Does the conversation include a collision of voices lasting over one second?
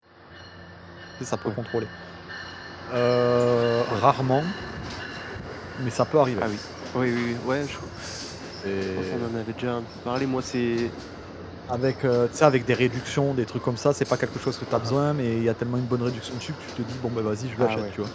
No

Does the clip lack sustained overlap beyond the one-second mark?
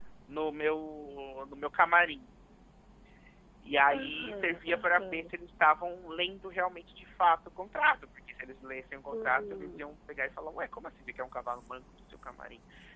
No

